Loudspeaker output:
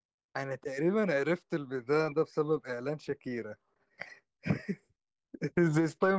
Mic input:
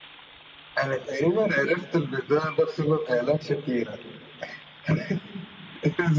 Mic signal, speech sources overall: echo only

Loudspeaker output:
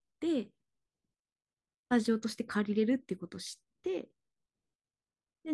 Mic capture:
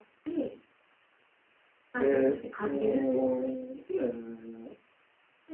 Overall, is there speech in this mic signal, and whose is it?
both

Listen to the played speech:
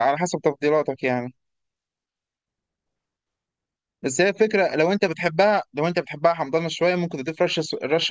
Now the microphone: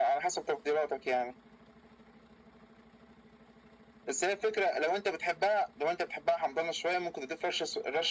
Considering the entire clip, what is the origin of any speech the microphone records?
echo only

